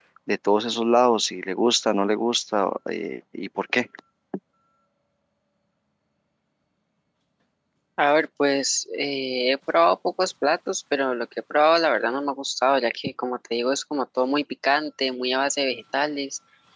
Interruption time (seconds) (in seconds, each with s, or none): none